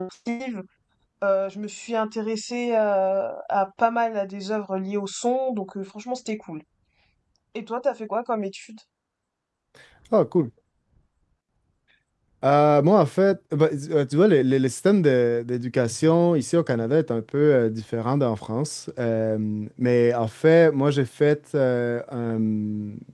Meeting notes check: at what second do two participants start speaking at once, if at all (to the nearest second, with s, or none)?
none